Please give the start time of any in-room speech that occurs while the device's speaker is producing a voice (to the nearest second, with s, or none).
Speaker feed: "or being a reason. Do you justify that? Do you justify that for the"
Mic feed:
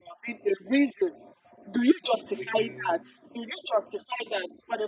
2 s